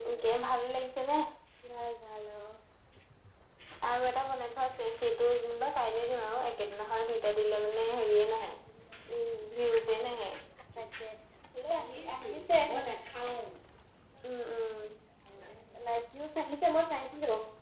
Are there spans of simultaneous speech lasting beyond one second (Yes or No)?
No